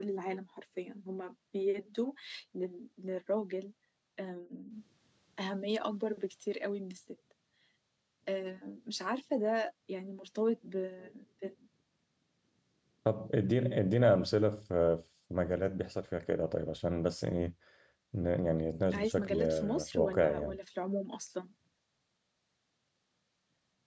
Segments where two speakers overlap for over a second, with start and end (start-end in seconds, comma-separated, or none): 18.9-20.6